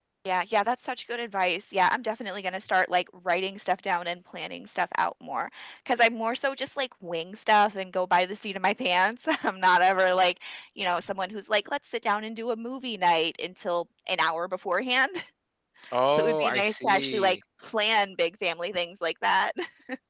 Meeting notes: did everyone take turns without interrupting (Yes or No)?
No